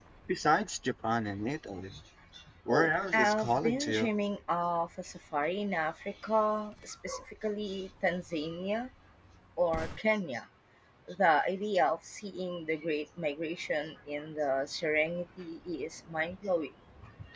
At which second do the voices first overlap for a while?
2.7 s

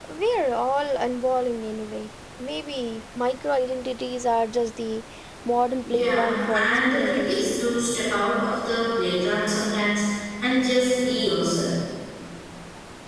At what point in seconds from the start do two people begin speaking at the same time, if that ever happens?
5.8 s

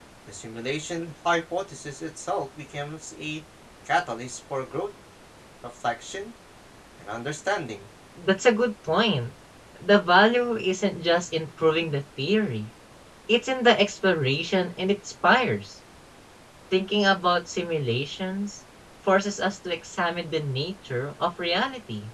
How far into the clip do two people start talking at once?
none

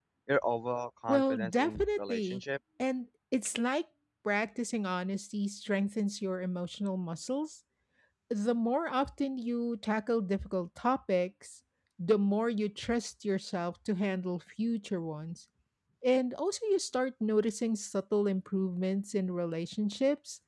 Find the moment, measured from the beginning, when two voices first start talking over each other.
1.1 s

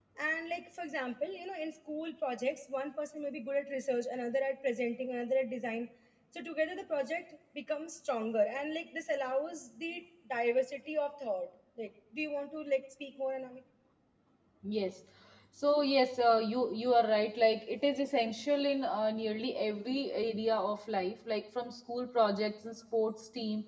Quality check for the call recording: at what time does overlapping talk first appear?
none

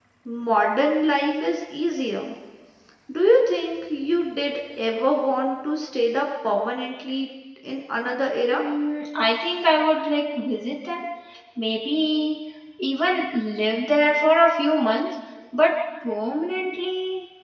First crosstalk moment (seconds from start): none

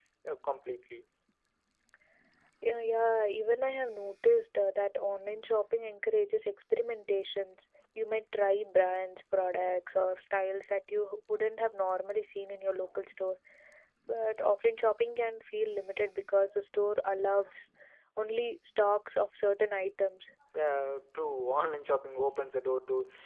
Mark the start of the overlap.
none

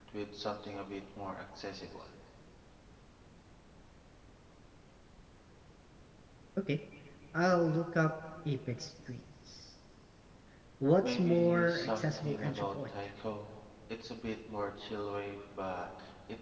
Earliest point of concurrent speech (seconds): 11.0 s

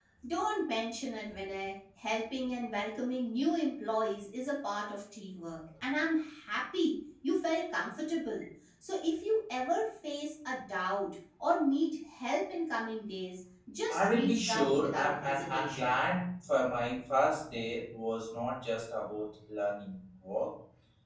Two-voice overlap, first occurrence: 13.9 s

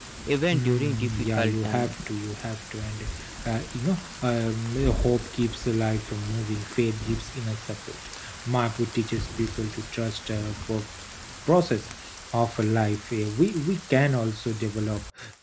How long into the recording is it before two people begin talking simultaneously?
0.5 s

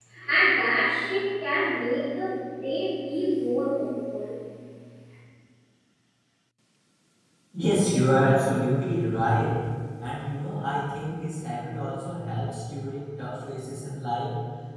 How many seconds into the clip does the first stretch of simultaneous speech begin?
none

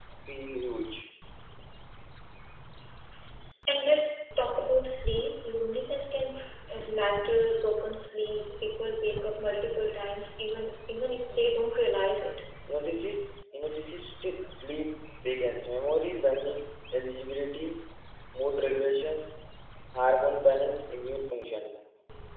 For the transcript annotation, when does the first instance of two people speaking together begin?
none

